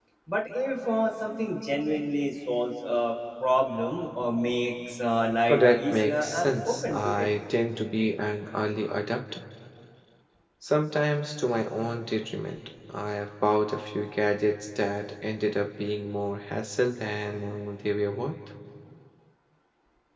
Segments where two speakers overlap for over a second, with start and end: 5.5-7.3

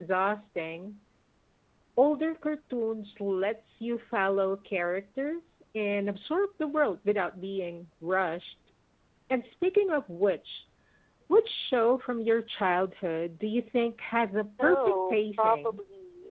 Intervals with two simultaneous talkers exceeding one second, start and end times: 14.6-15.8

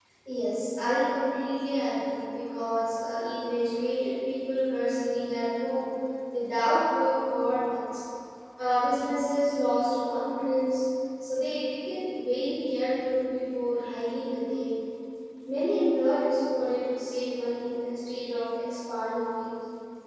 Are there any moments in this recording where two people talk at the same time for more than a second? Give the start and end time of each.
none

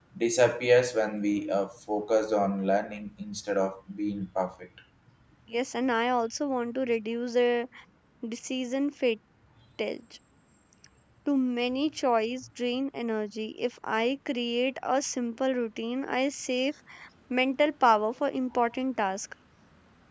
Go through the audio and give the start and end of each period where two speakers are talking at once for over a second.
none

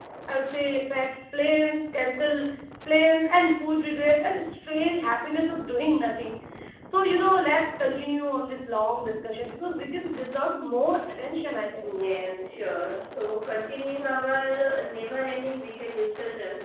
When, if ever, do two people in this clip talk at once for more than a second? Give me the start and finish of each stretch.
none

